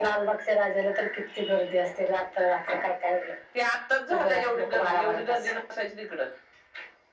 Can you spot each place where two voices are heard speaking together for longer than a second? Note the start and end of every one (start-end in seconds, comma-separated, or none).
4.1-5.5